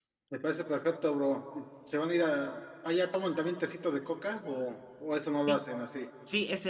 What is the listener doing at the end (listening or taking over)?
taking over